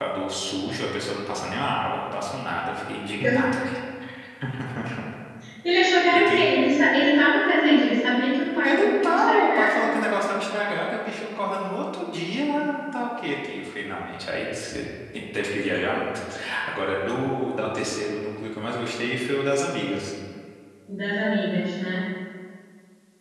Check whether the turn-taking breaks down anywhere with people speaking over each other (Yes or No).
Yes